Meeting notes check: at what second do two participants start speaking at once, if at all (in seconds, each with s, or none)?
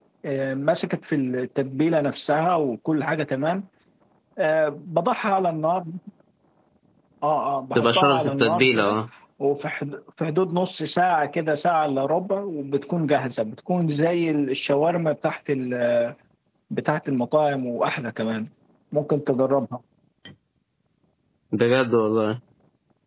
7.8 s